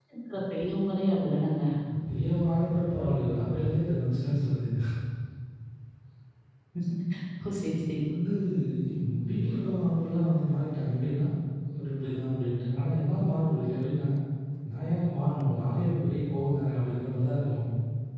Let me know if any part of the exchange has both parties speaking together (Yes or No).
No